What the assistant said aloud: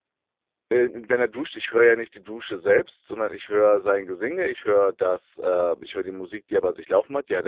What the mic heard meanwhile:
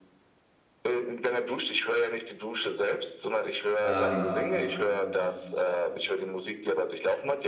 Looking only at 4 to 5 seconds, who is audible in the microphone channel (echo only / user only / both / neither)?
both